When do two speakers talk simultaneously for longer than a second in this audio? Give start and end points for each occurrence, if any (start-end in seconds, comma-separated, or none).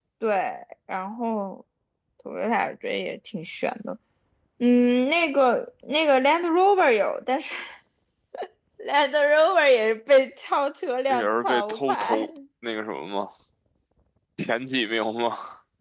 11.1-12.3